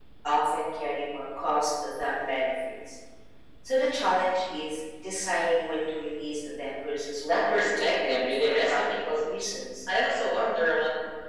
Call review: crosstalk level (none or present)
present